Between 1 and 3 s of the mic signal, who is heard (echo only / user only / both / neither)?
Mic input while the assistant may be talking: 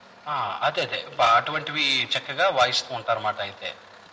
echo only